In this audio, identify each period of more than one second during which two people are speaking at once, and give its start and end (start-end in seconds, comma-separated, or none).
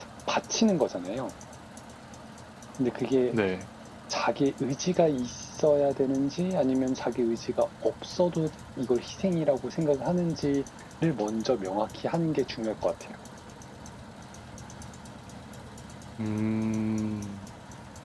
none